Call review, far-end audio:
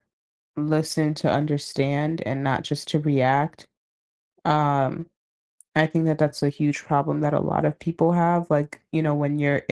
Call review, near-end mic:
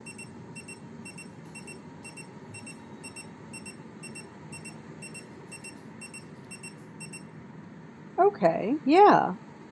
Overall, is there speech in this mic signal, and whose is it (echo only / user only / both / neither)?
user only